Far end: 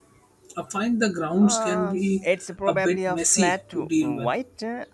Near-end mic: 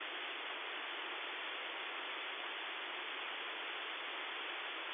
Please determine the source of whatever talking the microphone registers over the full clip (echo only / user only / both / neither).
neither